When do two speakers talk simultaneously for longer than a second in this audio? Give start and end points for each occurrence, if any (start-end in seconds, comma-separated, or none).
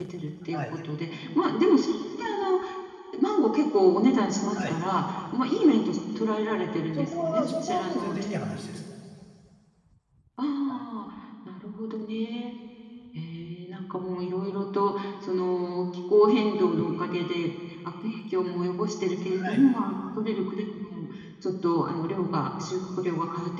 7.0-8.6